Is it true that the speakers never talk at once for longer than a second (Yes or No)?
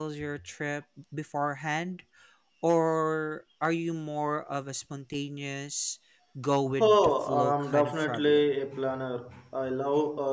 No